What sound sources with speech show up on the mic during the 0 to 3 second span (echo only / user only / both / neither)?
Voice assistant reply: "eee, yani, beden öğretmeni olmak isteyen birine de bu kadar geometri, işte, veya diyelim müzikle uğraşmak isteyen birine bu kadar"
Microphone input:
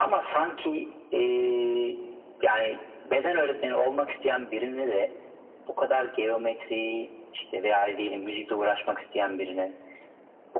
echo only